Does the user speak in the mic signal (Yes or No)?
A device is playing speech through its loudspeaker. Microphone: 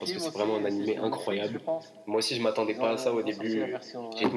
No